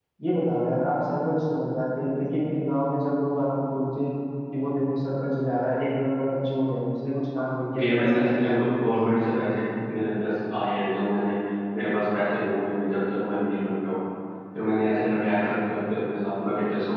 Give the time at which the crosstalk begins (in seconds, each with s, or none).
7.8 s